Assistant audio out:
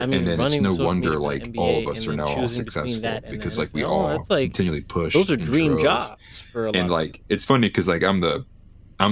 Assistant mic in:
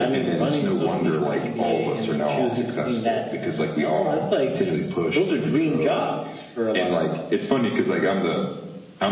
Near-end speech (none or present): none